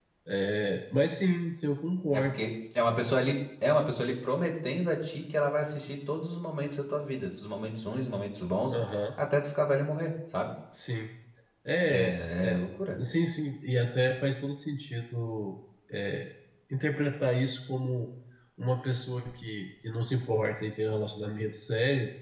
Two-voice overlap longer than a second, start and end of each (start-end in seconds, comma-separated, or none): none